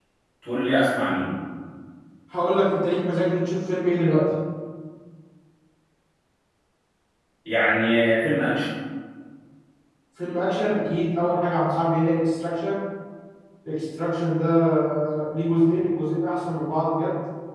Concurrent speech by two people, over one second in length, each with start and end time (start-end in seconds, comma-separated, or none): none